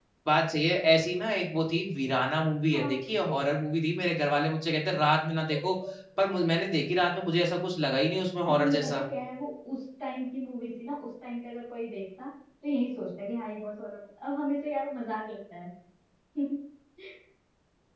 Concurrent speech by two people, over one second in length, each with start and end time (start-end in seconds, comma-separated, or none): none